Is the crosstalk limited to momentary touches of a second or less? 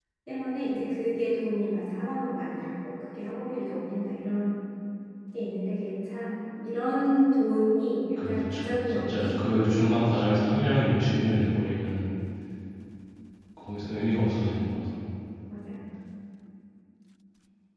No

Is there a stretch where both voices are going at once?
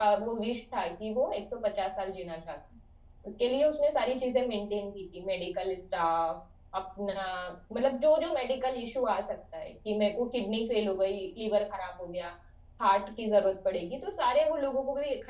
No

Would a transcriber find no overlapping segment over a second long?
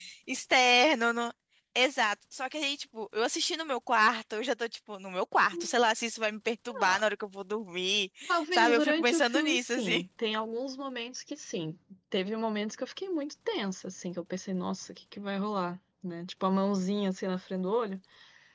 No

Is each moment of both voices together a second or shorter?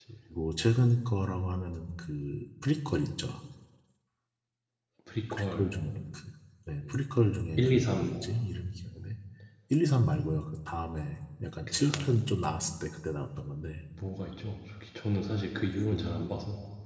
Yes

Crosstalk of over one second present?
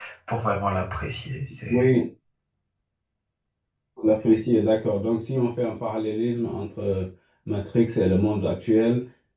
No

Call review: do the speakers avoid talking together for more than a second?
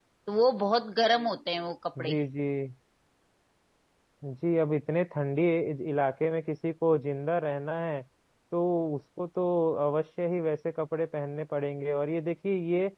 Yes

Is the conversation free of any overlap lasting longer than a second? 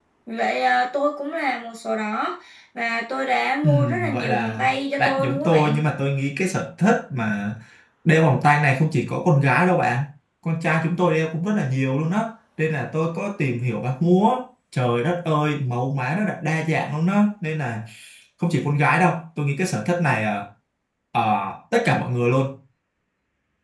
No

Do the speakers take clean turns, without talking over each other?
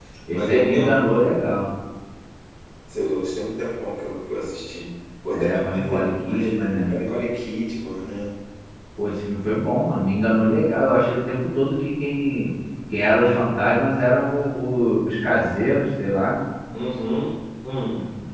No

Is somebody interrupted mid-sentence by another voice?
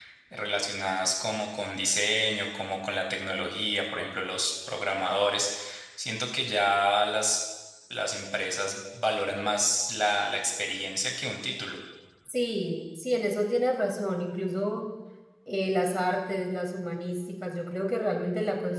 No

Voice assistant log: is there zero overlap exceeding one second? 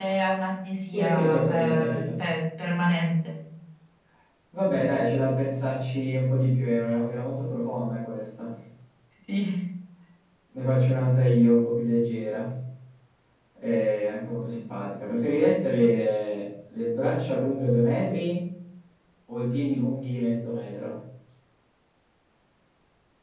No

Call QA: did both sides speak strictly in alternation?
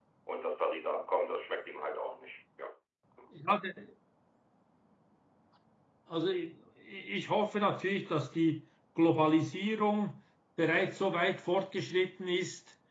Yes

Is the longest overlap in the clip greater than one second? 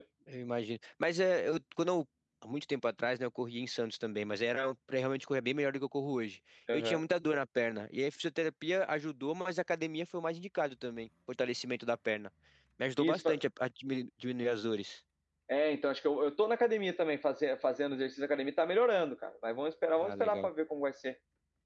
No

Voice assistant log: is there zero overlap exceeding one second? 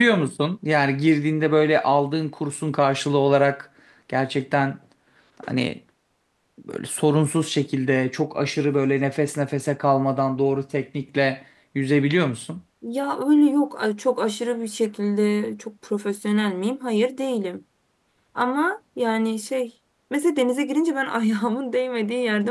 Yes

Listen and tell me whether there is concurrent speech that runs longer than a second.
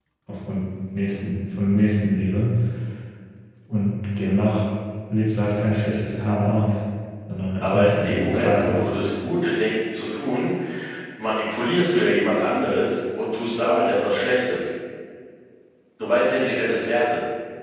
Yes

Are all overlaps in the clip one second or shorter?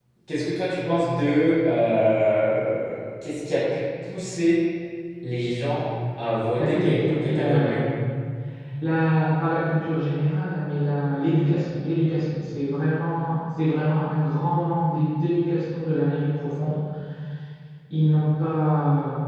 No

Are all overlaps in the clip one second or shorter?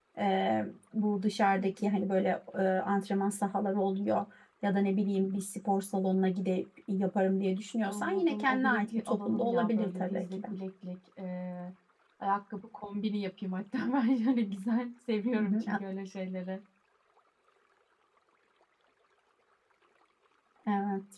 No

